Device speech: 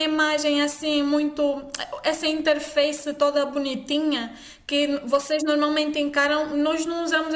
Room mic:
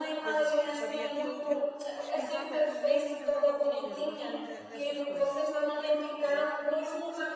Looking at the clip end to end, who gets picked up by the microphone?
both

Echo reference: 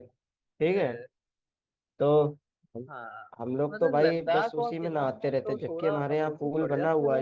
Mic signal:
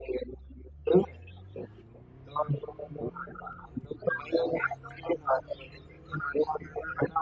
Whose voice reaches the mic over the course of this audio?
echo only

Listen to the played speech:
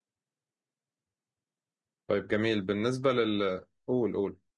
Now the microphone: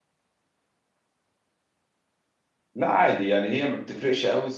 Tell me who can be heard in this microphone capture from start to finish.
user only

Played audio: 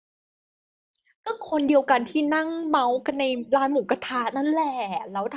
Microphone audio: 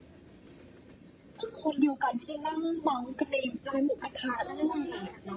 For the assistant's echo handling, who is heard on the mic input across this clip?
both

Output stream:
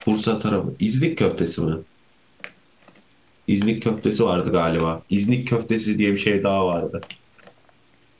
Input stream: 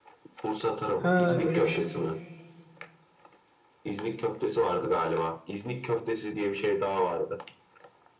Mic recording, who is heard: both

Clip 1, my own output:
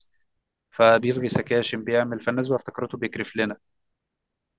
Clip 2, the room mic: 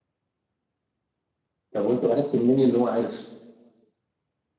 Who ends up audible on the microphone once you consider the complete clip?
user only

